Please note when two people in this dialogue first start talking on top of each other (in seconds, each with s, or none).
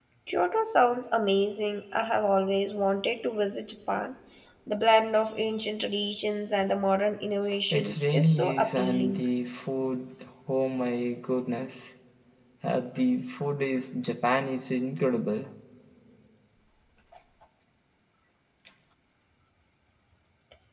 7.7 s